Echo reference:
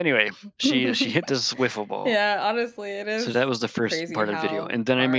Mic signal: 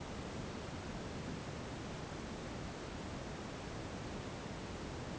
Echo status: none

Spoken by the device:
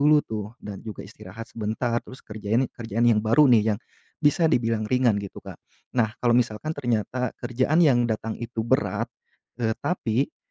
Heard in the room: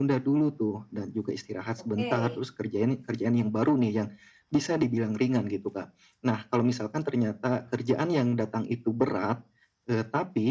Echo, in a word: present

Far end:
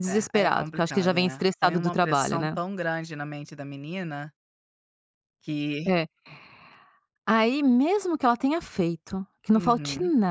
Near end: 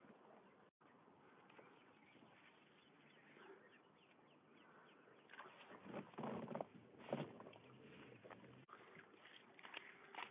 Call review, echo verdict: none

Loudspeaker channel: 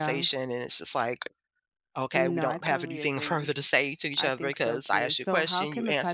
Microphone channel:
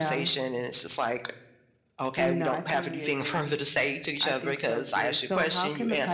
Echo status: present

